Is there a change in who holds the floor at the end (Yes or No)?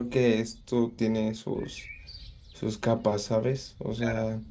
Yes